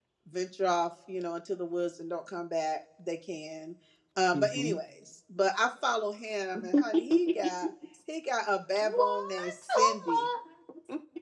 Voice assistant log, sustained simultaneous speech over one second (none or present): present